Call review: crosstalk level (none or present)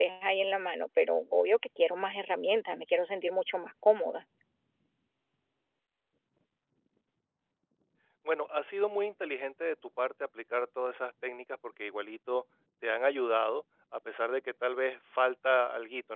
none